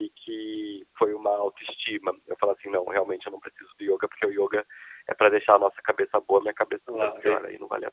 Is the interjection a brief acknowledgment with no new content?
No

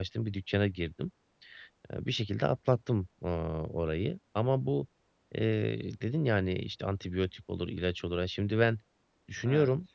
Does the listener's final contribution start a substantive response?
No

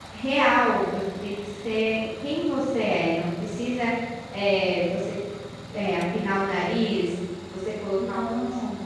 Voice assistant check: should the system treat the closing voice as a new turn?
No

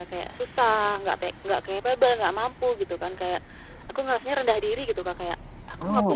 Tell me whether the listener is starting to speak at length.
No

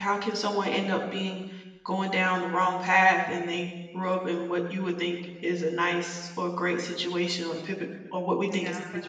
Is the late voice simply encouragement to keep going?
No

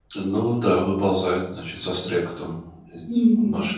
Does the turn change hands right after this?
Yes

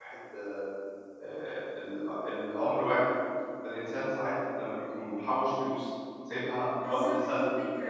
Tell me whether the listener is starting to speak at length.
Yes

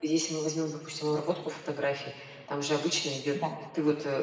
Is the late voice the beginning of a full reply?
No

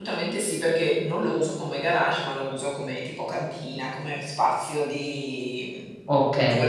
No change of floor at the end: No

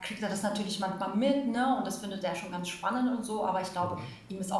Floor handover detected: No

